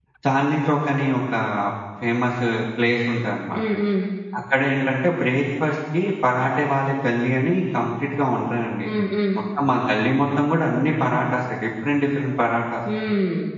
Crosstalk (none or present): none